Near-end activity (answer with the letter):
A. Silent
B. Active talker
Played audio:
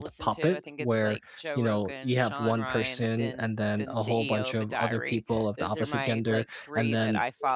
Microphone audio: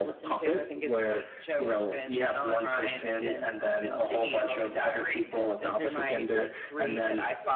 A